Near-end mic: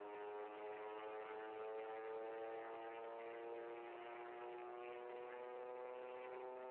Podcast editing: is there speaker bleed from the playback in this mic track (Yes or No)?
No